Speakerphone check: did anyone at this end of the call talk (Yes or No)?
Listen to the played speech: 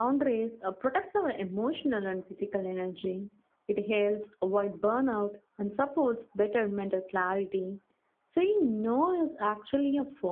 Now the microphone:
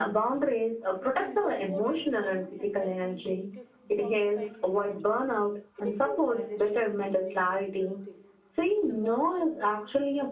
Yes